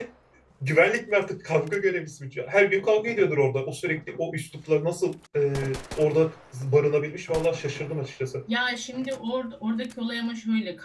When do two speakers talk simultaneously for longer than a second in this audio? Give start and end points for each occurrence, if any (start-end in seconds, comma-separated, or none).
none